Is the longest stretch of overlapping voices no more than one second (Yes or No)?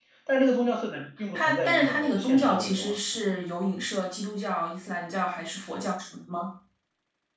No